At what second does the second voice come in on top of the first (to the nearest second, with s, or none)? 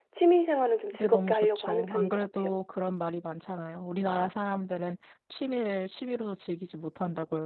1 s